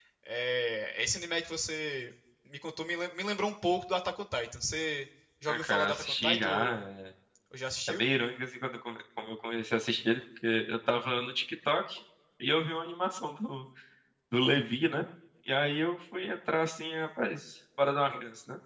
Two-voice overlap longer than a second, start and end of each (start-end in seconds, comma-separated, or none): 5.5-6.8